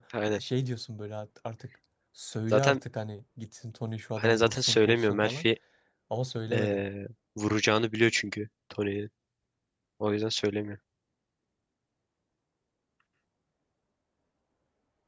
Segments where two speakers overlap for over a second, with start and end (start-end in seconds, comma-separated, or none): 4.2-5.5